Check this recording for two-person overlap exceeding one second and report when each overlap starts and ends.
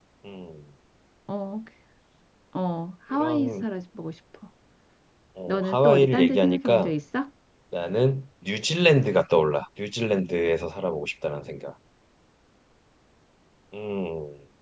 5.5-6.9

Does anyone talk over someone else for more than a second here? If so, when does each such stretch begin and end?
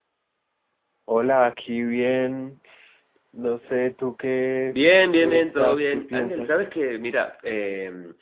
5.2-6.5

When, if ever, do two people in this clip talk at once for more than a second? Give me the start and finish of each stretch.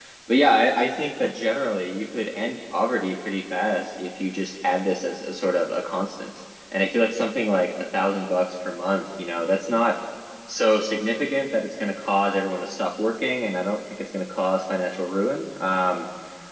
none

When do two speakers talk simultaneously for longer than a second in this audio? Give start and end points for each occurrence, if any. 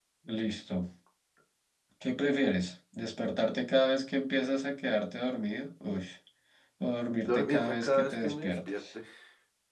7.2-8.8

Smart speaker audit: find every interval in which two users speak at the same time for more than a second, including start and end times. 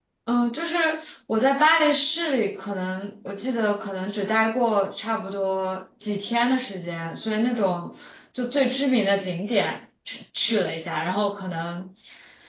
none

